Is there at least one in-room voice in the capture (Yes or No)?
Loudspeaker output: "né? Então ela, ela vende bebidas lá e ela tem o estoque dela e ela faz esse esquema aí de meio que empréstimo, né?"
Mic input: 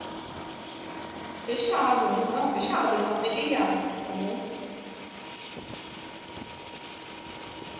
Yes